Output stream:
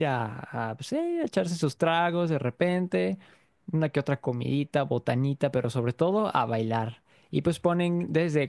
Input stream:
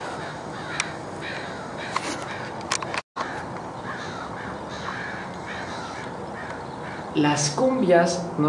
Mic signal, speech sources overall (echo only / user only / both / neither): user only